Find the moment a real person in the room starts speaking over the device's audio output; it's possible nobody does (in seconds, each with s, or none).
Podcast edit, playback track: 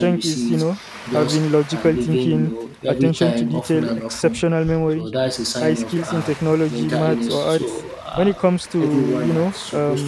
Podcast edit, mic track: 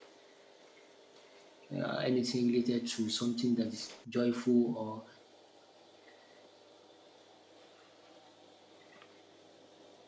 1.7 s